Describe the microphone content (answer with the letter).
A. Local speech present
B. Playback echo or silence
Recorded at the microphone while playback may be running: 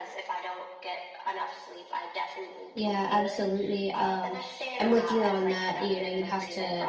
A